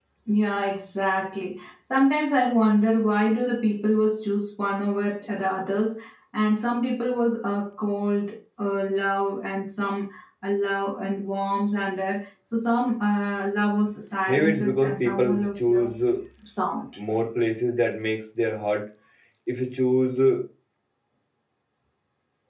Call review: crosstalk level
present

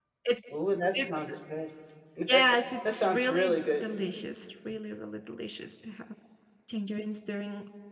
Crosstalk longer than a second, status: present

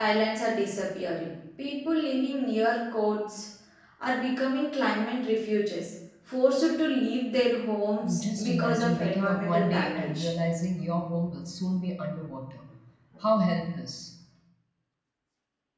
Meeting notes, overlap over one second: present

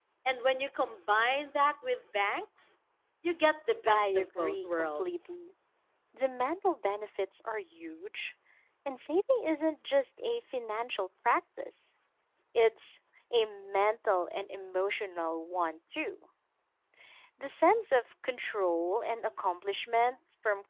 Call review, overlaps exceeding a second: present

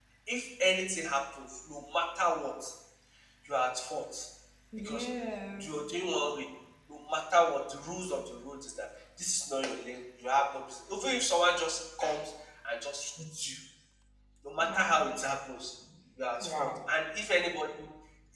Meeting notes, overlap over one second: none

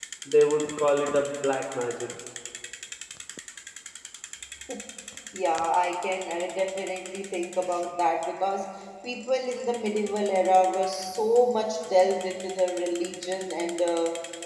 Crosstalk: none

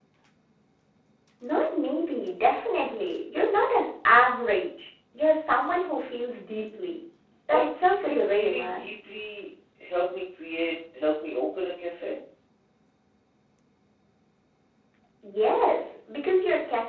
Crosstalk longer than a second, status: present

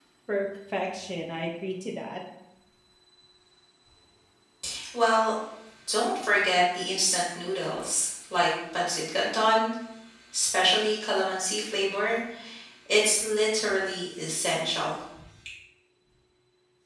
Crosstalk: none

